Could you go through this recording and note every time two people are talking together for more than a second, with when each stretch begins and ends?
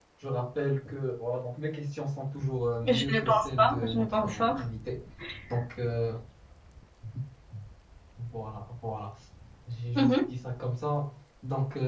2.8-4.5

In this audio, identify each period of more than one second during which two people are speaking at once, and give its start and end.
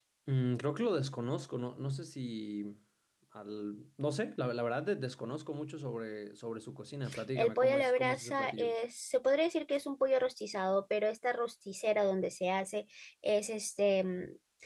7.3-8.7

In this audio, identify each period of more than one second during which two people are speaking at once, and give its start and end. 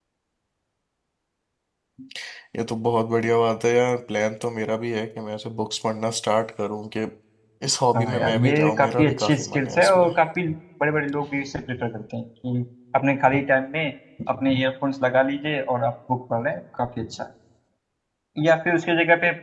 8.0-10.1

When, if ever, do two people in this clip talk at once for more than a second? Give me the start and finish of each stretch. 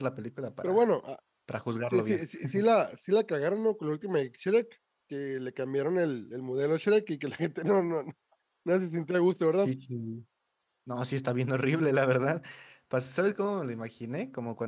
none

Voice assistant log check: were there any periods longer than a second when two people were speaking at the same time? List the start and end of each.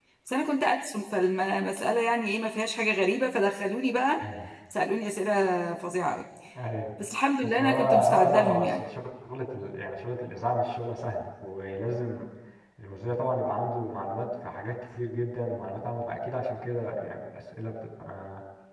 7.6-8.8

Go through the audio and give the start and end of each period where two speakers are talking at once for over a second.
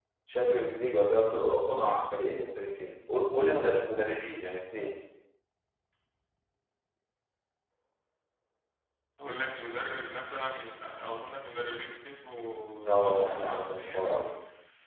12.9-14.2

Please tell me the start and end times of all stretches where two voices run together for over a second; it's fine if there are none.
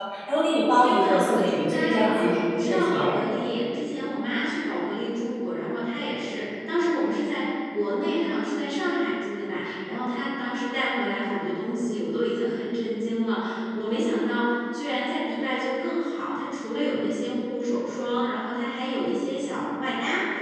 0.8-3.2

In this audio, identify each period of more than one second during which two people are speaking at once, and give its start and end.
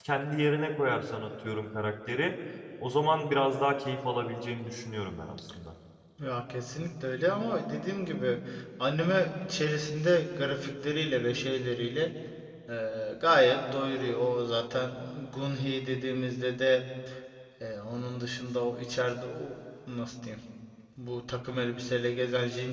none

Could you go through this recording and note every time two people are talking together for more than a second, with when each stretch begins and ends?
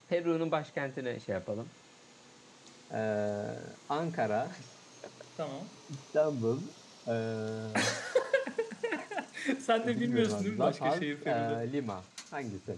9.8-11.6

